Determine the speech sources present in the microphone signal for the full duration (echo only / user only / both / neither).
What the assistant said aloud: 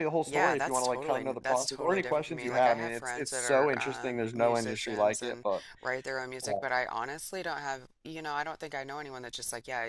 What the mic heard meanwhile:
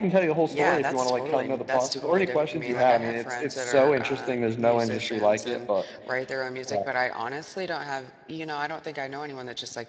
echo only